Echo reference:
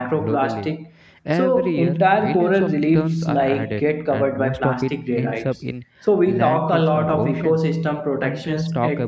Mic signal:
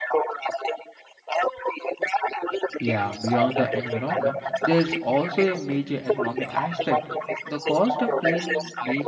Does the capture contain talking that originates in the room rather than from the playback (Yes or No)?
Yes